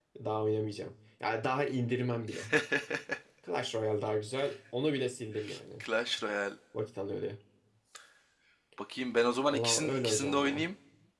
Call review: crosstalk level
present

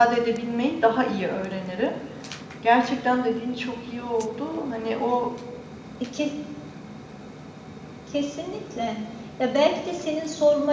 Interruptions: none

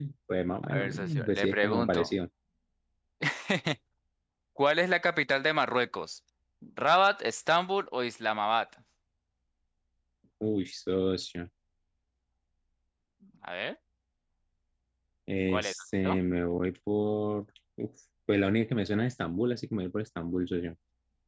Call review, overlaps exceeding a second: present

